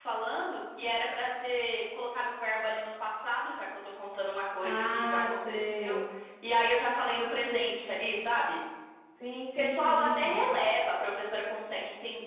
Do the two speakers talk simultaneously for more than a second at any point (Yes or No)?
Yes